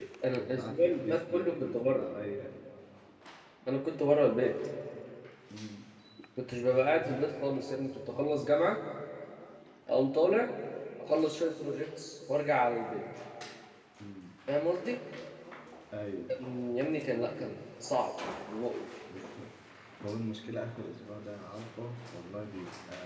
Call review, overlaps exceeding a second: present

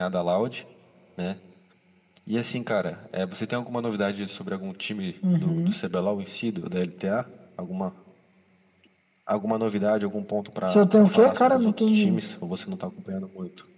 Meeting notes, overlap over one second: present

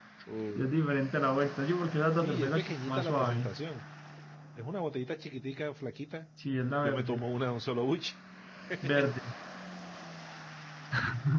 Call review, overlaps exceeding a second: present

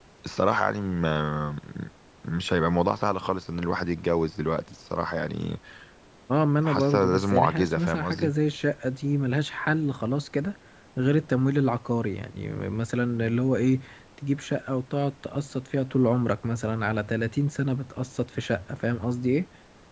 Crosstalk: present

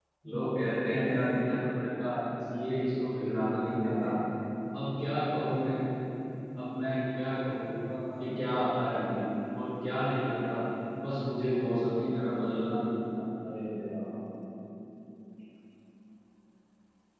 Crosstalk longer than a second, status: none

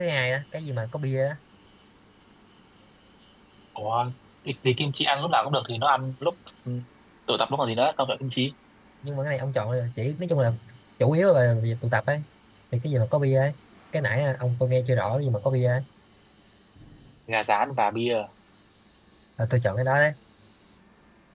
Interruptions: none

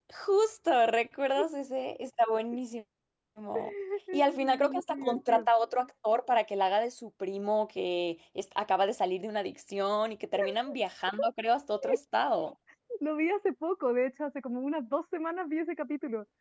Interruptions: present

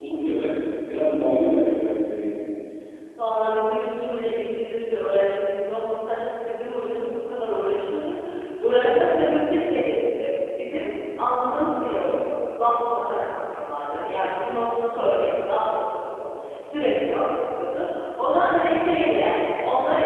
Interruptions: none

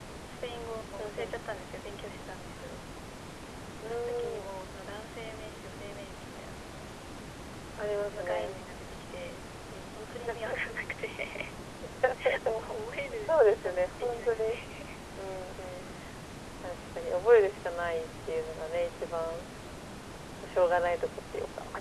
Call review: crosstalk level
present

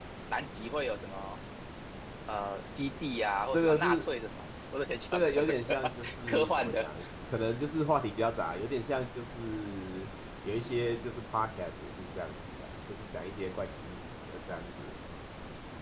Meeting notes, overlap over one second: present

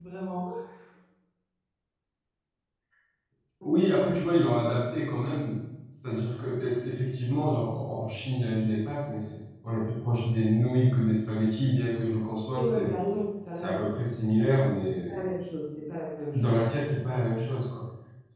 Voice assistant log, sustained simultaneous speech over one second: none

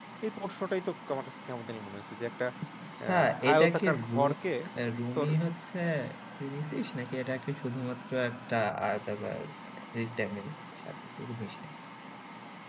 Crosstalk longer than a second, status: present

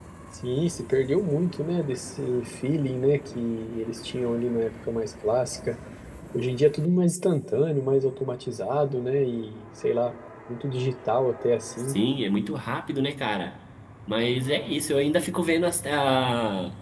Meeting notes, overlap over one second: none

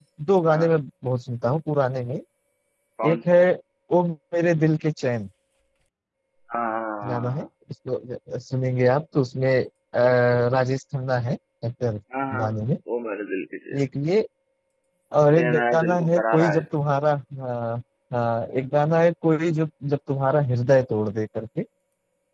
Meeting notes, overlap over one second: present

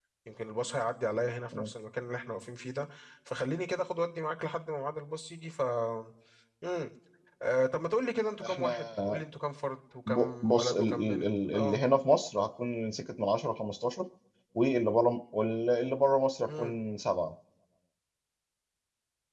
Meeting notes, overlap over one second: present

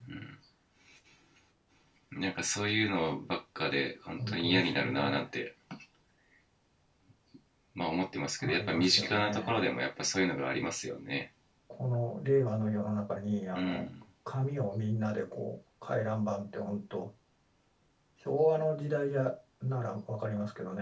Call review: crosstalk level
present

